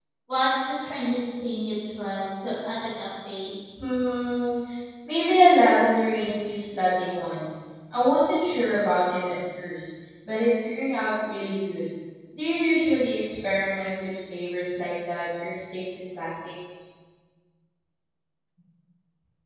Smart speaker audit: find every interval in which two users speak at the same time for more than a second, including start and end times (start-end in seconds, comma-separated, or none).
none